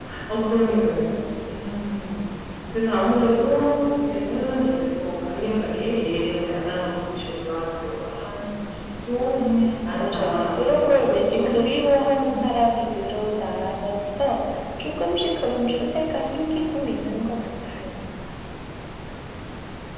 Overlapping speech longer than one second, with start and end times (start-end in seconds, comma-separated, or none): 9.8-11.6